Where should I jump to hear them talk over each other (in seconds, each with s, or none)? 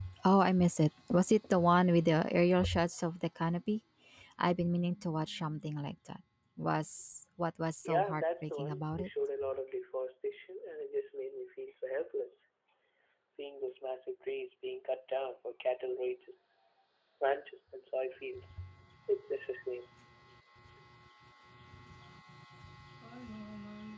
7.8 s